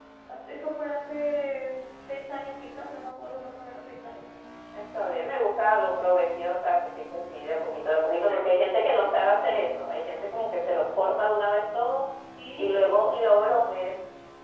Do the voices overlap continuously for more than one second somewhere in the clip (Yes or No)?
No